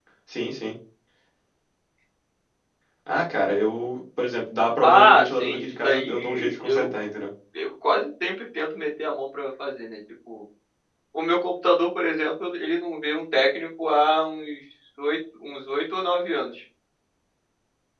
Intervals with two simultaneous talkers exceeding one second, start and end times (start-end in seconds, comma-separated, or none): 4.8-7.0